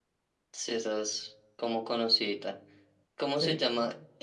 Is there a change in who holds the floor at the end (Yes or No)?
No